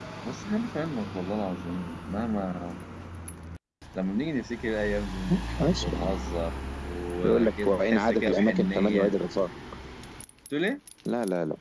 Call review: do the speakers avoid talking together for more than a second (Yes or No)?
No